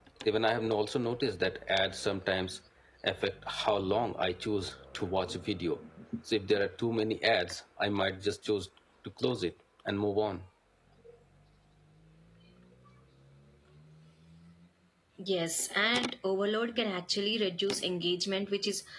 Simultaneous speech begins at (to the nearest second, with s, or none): none